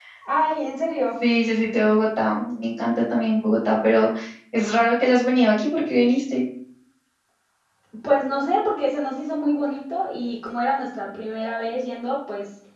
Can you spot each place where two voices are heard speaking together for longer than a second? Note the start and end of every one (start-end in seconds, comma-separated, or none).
none